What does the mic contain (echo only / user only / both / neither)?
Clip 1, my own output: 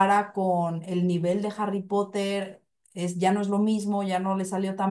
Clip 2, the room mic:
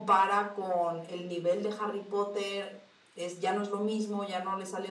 echo only